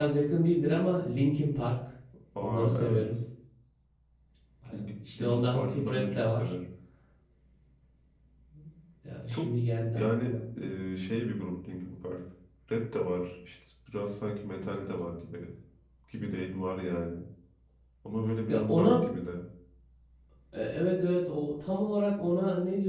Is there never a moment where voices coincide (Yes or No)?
No